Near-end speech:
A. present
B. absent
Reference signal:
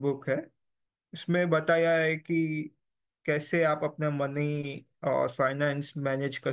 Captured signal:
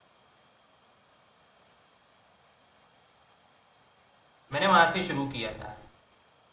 A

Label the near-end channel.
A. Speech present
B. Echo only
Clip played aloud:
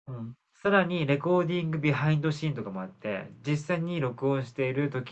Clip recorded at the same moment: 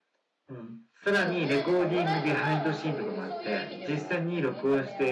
A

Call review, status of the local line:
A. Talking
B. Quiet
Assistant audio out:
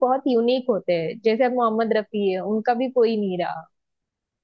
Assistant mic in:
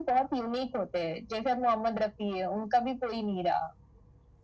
B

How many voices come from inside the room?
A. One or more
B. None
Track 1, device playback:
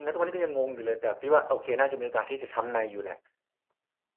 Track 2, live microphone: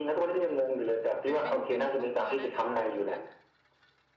A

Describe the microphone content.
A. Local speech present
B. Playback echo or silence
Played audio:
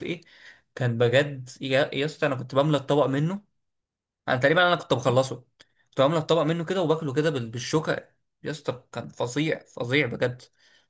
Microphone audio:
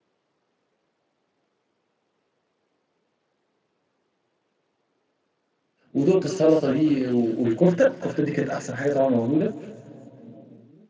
A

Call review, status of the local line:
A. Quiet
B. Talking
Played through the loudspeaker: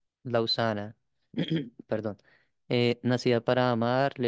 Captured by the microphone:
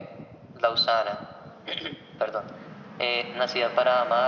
A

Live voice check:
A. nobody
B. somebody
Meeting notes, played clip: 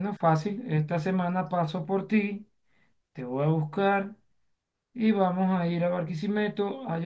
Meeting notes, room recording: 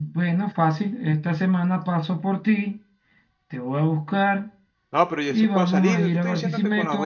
B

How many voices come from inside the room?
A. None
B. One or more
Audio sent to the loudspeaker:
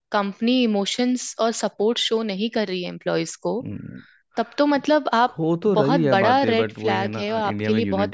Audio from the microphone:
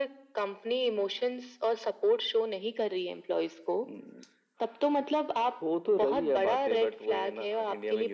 A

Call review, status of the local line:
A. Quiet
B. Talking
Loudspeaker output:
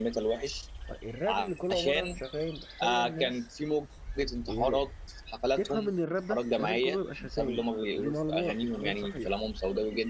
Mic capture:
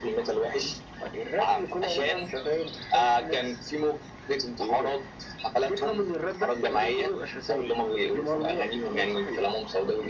A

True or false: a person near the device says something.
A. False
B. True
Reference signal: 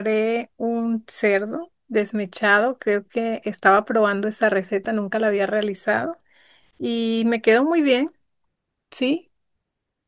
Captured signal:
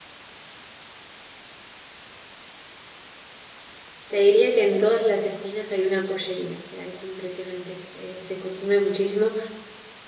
B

